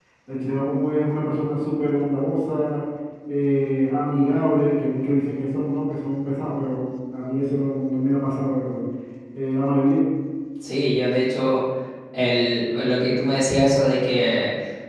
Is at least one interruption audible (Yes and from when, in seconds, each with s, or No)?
No